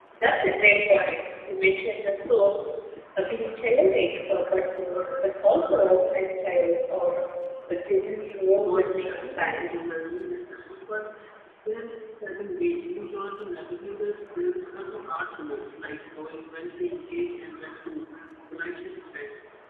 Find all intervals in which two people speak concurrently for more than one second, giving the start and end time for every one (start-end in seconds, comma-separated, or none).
8.6-9.8